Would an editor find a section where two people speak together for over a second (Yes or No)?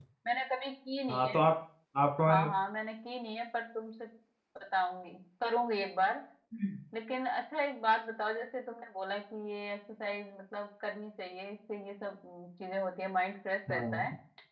No